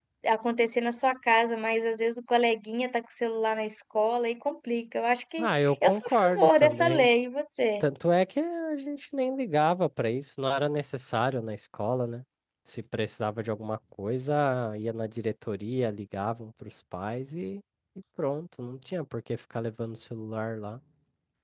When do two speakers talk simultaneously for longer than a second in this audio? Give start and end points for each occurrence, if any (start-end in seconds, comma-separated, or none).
5.4-7.1